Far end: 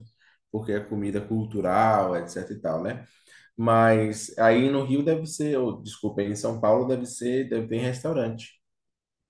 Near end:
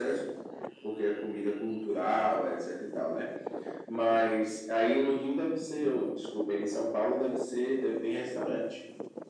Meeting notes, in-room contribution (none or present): none